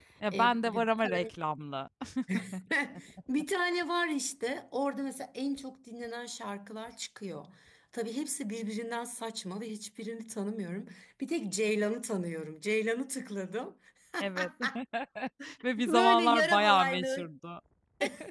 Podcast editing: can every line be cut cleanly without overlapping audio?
No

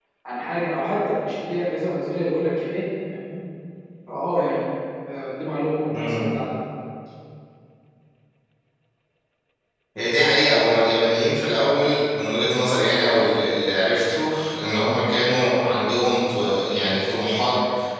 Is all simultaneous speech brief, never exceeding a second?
Yes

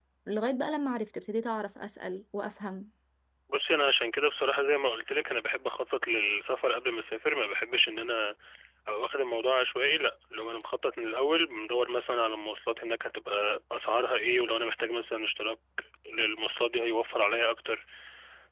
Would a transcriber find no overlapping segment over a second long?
Yes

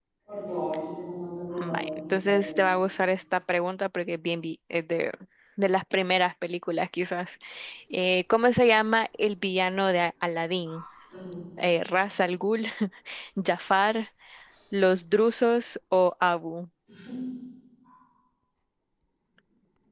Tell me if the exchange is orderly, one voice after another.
No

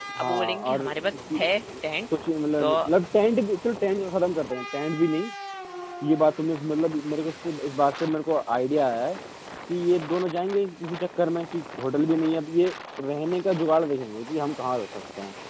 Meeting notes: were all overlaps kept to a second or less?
No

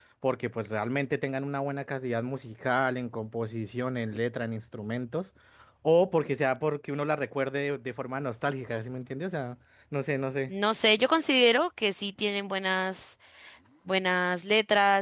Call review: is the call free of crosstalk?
Yes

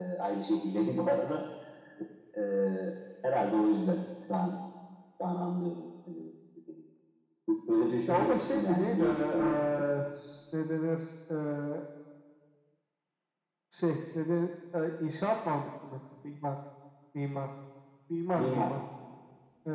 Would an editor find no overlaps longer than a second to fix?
No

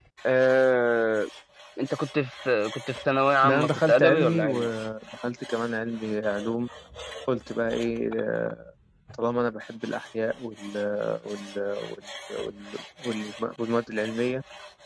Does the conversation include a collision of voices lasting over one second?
Yes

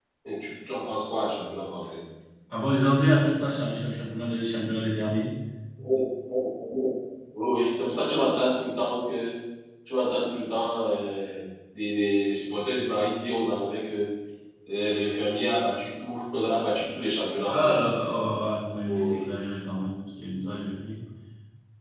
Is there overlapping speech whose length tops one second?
No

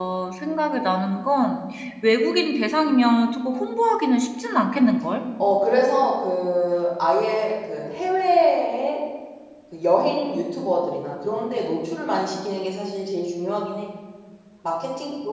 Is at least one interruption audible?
No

